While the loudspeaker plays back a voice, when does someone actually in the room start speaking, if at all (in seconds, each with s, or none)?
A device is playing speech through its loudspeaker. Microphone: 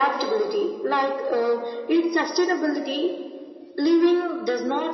none